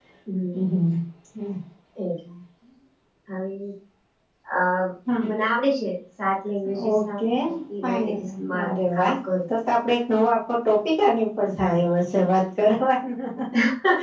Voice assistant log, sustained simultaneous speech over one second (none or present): present